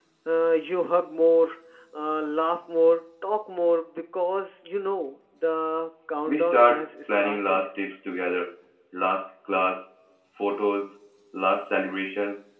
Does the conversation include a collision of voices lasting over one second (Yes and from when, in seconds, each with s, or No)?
Yes, from 6.3 s